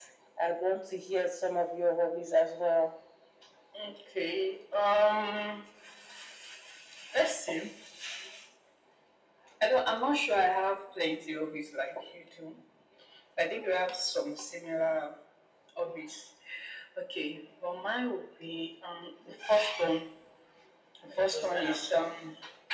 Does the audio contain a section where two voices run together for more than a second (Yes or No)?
No